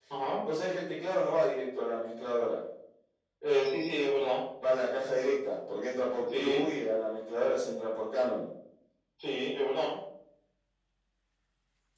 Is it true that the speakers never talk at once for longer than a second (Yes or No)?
Yes